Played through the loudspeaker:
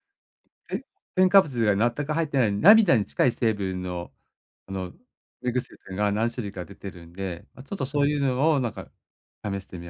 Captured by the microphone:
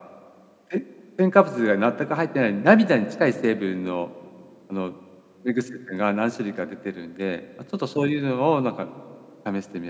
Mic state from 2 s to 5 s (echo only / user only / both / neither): echo only